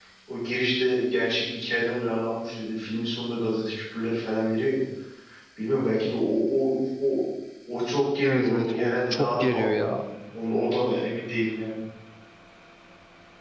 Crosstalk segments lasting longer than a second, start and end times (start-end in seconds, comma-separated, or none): 8.2-10.0